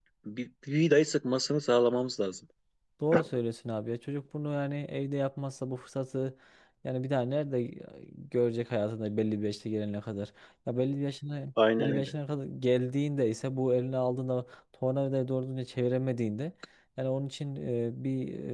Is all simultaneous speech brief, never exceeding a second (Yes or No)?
Yes